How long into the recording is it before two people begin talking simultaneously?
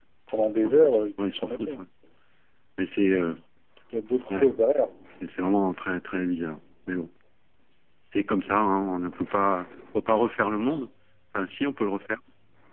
1 s

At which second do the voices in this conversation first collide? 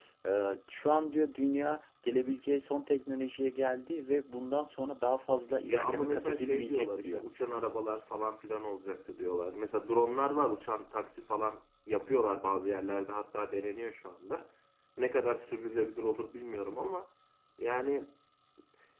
6 s

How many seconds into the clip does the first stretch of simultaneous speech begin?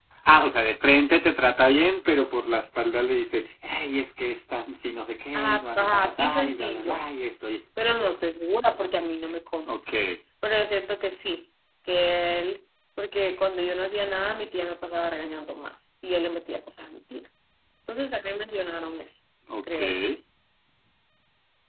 5 s

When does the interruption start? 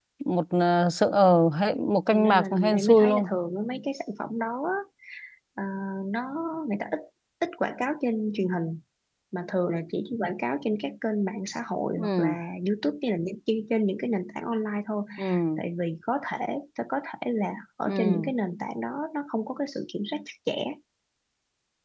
2 s

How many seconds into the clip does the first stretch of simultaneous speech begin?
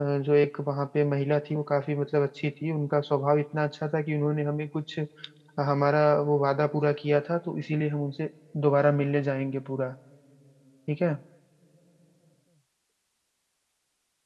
none

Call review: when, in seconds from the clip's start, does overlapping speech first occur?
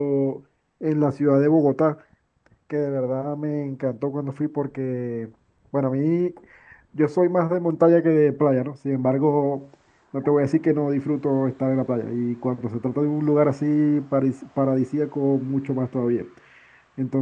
none

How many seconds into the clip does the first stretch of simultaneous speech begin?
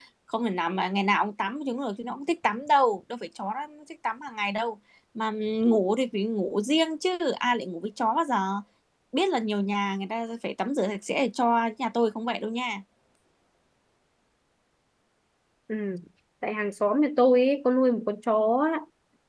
none

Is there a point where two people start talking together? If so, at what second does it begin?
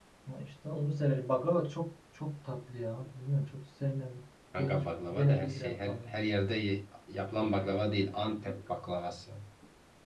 5 s

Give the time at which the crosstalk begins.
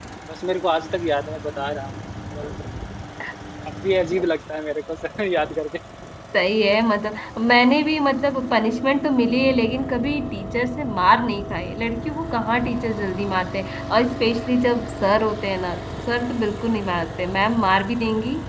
none

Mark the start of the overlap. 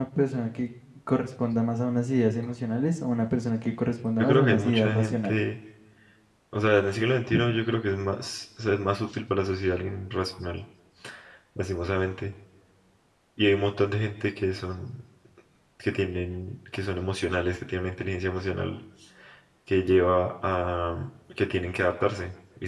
4 s

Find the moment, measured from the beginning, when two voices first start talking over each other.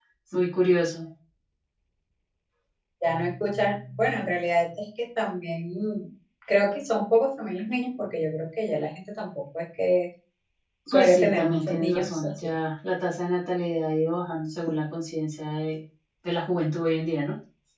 11 s

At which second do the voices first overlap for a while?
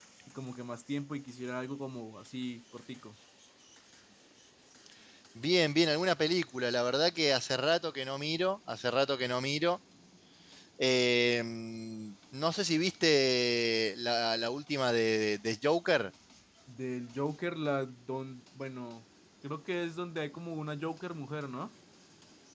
none

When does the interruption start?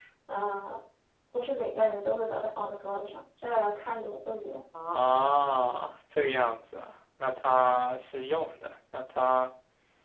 none

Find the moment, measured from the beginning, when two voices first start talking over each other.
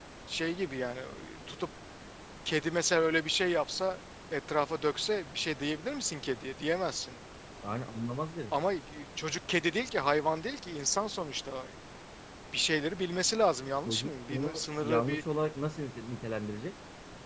14 s

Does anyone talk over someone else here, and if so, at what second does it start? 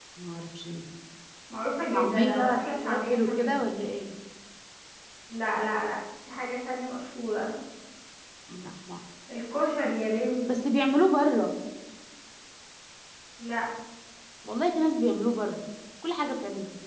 2 s

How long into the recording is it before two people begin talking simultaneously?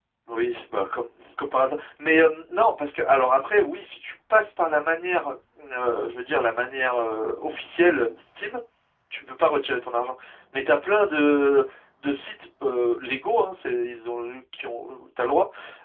none

